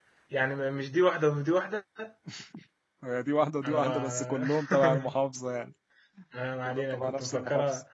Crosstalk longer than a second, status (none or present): present